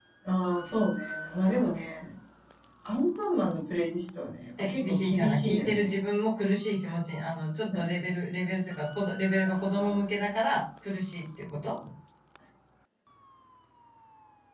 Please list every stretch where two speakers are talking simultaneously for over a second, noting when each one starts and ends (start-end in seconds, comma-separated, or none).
4.6-5.9